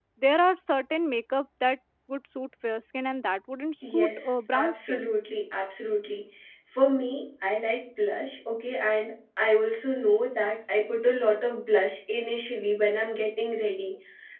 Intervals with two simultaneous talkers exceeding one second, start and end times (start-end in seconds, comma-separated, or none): 3.8-5.1